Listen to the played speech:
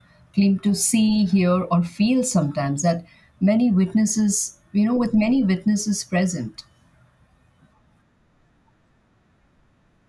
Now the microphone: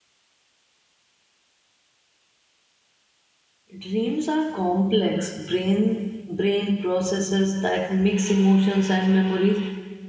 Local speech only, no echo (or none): Dreams are complex brain brain processes that mix emotions and memories,